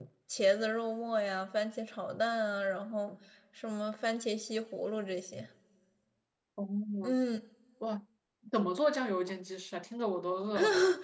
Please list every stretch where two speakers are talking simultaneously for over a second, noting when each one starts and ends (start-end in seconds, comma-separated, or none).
none